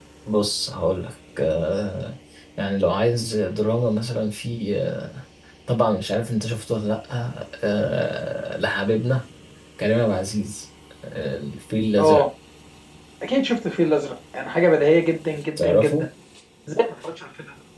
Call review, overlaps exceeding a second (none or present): none